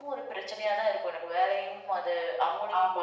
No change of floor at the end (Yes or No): No